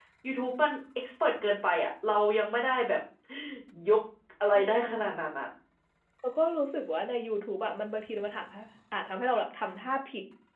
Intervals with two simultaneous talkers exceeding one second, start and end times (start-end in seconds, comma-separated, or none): none